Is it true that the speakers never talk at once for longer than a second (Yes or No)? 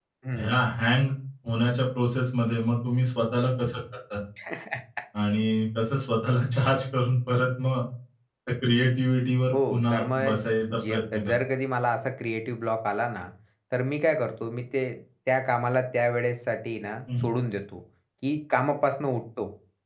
No